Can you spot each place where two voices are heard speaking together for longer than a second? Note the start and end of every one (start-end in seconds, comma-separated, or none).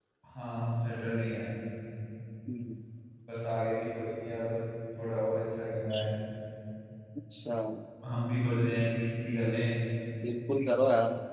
none